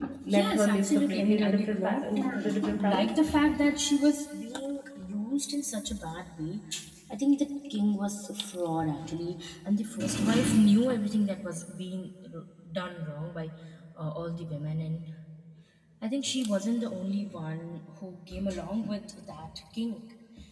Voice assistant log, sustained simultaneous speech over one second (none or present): present